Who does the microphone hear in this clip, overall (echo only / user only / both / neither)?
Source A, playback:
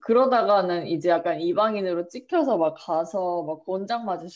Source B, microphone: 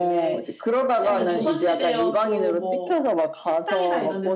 both